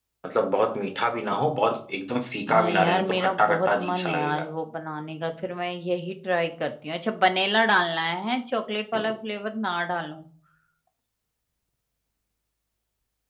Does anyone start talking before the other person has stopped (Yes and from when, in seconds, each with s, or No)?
Yes, from 2.5 s